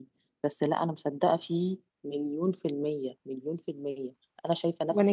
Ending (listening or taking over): listening